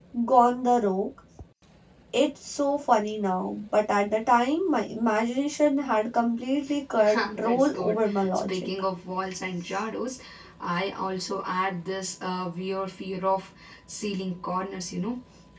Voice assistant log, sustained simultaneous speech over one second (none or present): present